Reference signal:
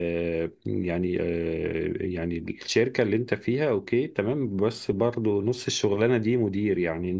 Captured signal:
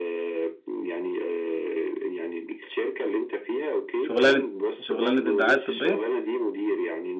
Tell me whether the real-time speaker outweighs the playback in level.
Yes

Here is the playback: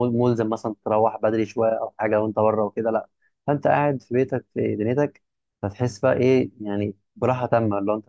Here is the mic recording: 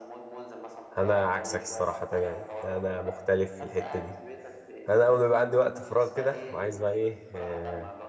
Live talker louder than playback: Yes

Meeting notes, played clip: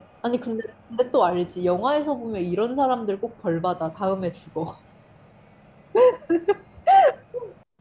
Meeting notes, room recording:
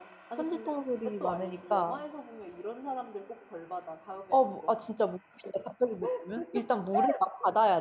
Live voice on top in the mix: Yes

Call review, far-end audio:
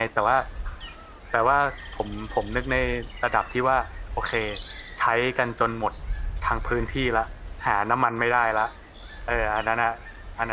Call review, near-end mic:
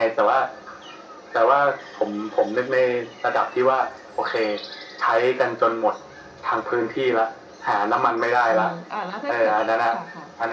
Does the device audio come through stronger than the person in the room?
Yes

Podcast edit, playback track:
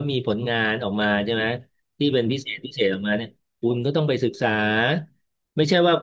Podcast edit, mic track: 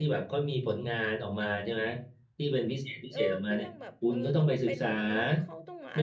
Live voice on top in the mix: No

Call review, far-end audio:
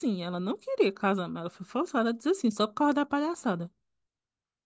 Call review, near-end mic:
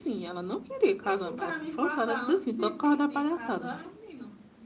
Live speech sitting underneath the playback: Yes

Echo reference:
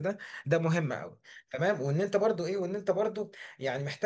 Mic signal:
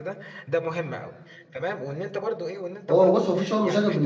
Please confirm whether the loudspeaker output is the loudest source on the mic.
No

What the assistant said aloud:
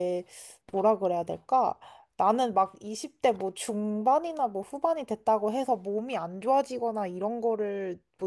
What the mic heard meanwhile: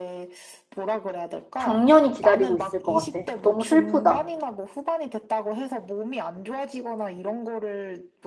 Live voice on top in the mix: Yes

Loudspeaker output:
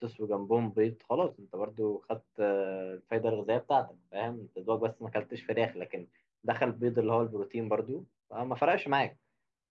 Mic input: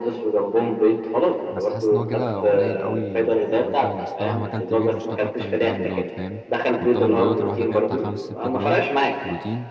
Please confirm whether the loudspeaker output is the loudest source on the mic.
Yes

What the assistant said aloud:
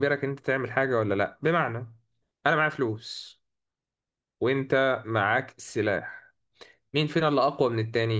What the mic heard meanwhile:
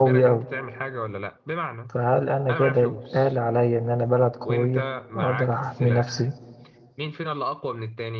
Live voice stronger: Yes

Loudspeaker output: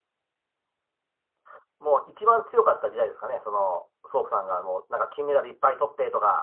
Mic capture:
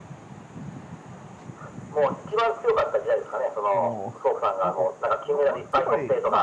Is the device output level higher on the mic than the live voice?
Yes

